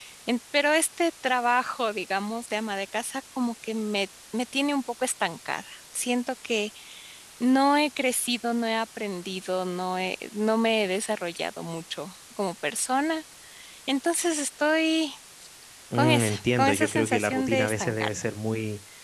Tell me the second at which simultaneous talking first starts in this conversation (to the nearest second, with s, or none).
16 s